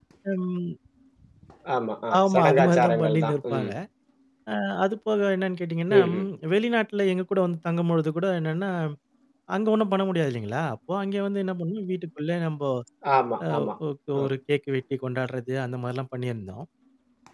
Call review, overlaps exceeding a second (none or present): present